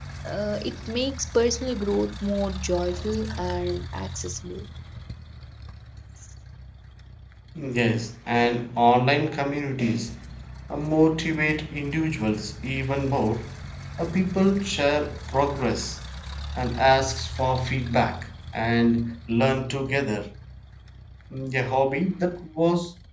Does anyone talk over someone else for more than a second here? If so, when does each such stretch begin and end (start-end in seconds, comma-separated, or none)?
none